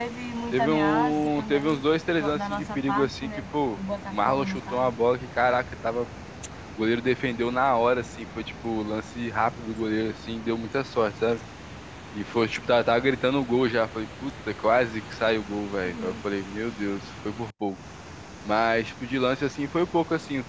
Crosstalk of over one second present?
Yes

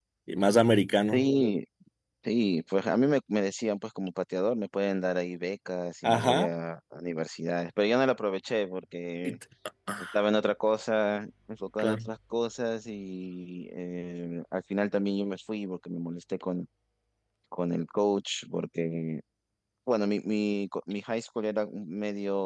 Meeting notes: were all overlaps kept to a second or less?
Yes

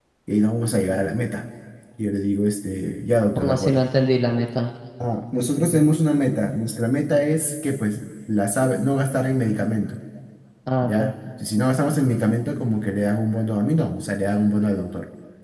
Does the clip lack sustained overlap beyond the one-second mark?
Yes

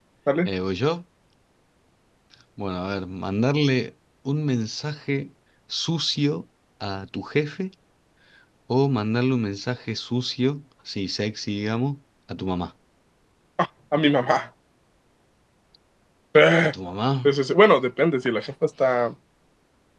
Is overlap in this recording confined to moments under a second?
Yes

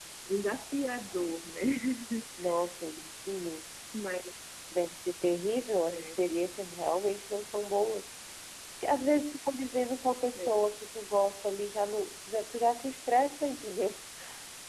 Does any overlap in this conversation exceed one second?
No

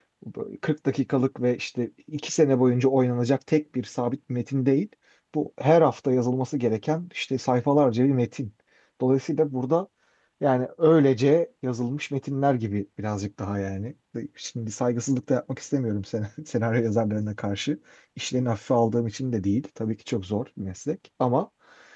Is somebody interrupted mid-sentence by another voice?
No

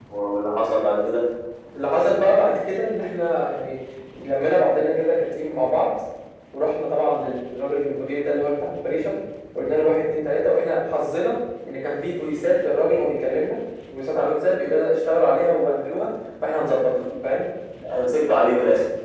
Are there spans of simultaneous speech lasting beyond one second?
No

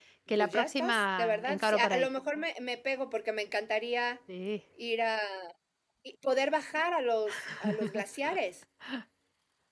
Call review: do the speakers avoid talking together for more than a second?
No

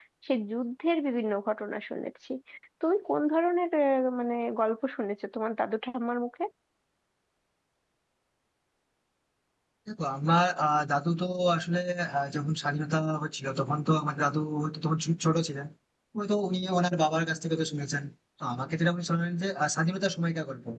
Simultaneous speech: No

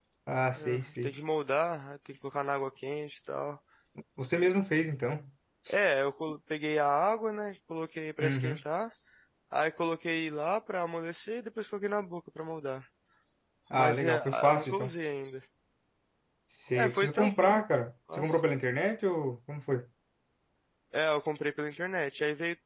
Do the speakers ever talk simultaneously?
Yes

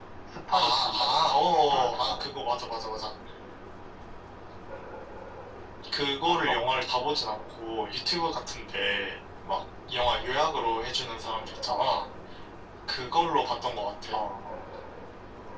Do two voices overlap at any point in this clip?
Yes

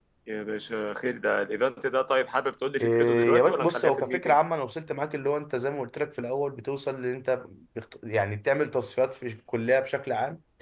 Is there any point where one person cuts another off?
Yes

